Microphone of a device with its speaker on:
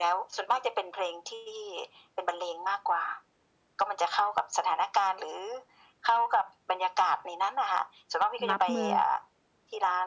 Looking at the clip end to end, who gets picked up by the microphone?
both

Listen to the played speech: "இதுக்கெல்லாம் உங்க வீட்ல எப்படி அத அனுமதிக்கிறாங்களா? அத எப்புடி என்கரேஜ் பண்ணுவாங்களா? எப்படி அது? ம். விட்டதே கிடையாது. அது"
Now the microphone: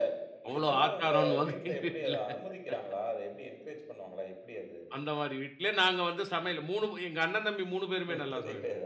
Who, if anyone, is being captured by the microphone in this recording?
both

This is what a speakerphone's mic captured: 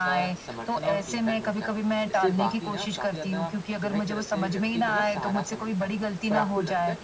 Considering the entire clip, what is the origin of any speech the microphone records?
both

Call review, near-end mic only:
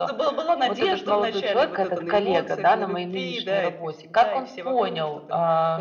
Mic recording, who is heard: echo only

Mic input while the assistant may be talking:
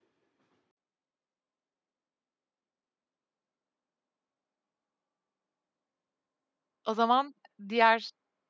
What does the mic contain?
user only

